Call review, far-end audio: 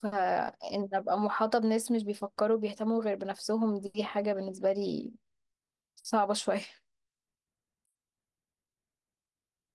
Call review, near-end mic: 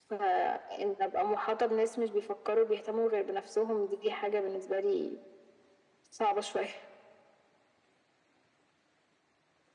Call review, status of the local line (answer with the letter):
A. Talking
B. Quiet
B